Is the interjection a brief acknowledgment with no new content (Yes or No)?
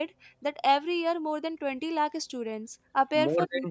No